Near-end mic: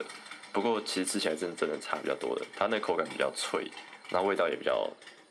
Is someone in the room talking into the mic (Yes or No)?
No